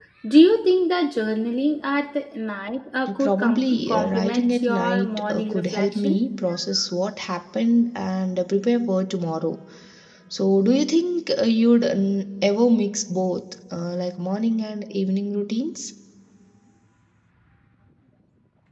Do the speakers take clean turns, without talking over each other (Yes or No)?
No